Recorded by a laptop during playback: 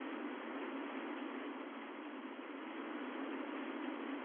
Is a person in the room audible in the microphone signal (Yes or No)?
No